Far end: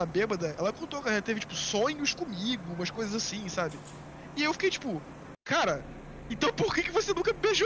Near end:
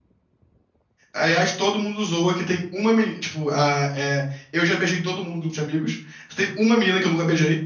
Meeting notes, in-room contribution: present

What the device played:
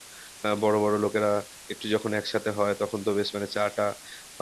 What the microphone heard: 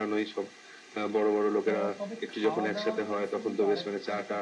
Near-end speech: present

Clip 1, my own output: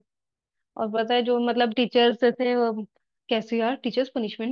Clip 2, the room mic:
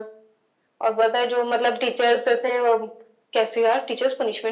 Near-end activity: none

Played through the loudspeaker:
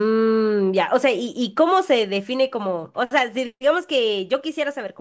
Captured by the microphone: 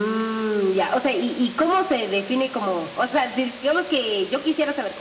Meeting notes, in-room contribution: none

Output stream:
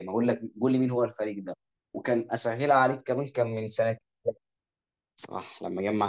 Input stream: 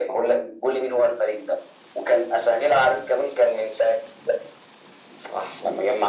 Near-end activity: none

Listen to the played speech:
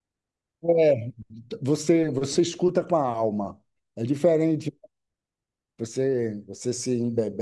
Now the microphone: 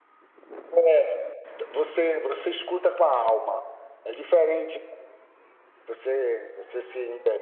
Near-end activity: none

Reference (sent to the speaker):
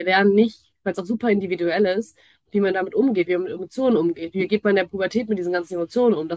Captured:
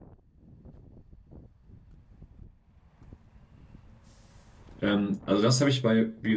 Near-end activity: present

